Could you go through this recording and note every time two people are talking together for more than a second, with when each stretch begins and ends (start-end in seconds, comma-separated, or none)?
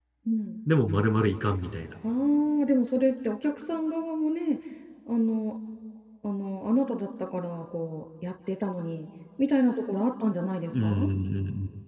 none